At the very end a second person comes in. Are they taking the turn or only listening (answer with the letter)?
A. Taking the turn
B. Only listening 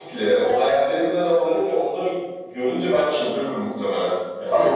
A